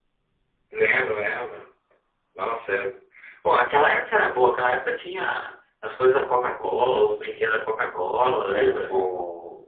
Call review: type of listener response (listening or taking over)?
taking over